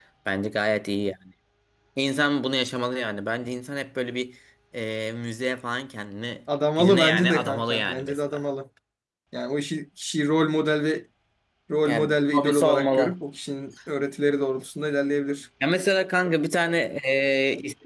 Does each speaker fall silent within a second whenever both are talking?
No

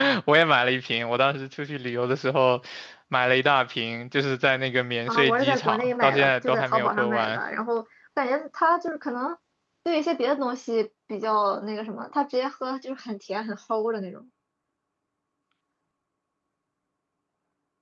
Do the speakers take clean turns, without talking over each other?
No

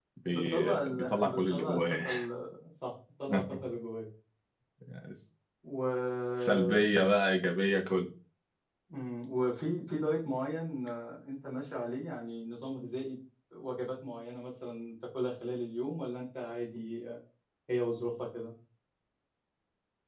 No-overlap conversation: No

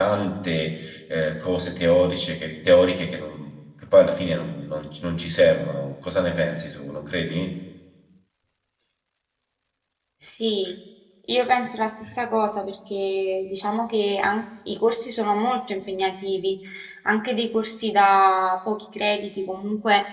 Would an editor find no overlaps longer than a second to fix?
Yes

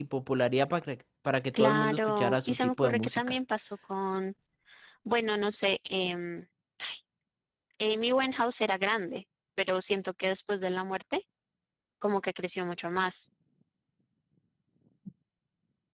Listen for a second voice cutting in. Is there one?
Yes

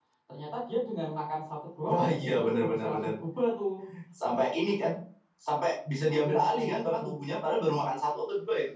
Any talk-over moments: Yes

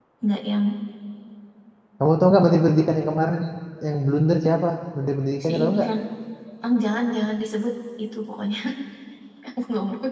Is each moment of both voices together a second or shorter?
Yes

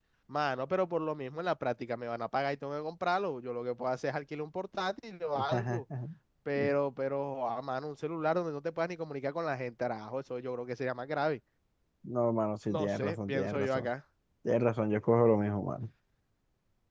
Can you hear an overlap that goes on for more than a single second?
Yes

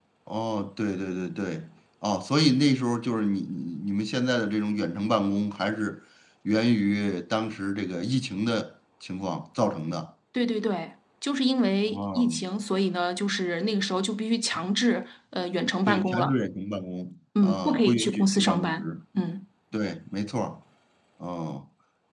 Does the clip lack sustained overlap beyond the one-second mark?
No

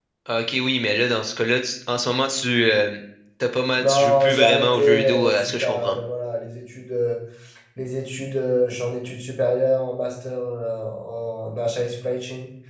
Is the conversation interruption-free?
No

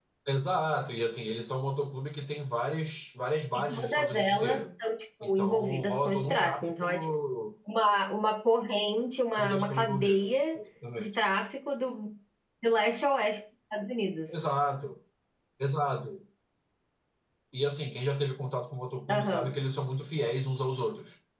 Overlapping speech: Yes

